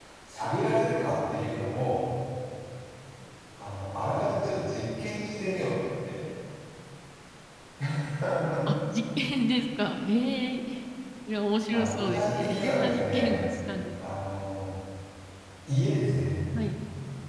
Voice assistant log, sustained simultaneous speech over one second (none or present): present